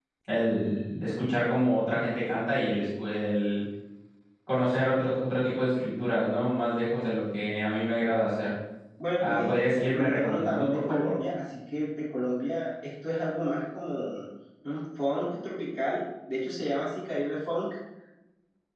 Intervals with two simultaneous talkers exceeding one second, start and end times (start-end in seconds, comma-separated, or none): 9.2-11.1